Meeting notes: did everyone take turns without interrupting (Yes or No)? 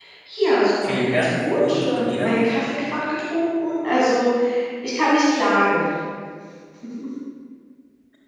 No